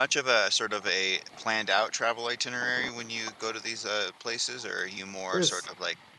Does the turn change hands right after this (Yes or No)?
No